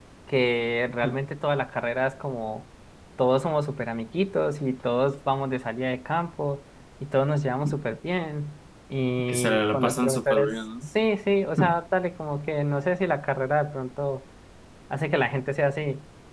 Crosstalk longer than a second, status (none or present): present